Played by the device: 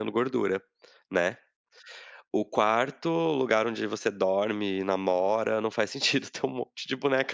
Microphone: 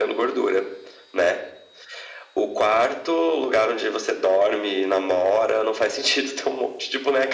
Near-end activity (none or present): none